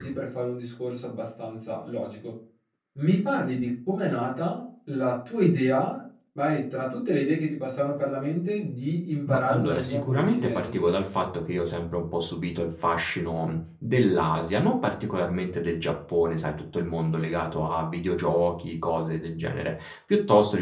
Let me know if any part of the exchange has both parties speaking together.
Yes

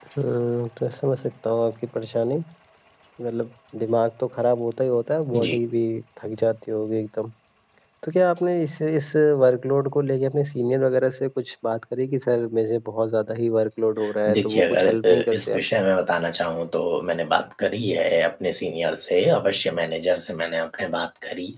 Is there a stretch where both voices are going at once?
Yes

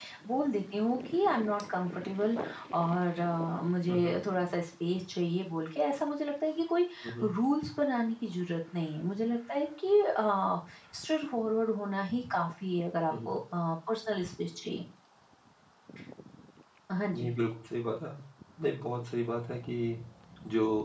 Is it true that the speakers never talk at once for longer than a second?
Yes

